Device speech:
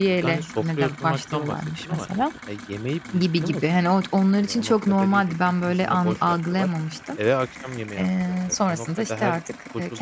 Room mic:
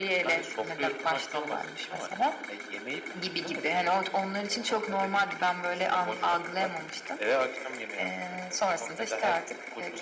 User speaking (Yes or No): No